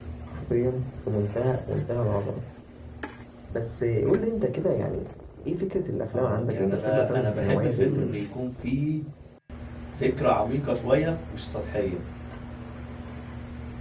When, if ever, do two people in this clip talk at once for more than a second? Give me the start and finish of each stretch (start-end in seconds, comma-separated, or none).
6.1-8.2